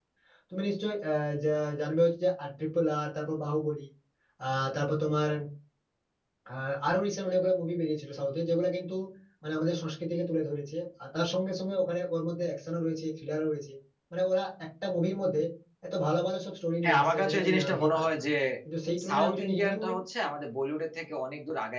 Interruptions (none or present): present